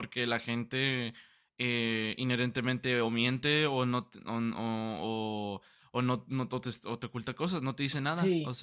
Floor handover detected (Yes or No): Yes